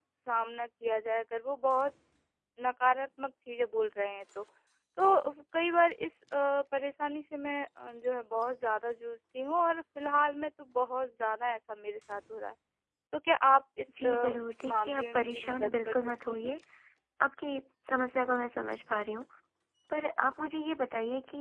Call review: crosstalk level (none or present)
present